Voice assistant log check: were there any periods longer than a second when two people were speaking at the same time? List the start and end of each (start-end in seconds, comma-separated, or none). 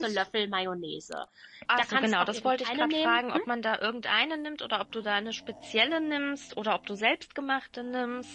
1.8-3.2